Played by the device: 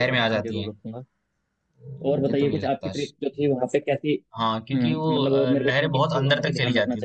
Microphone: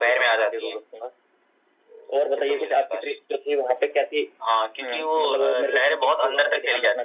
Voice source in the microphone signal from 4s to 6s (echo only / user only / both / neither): echo only